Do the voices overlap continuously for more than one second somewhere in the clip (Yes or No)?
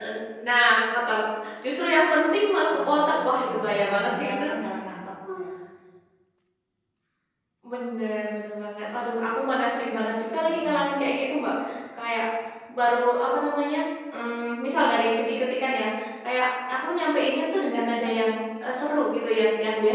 Yes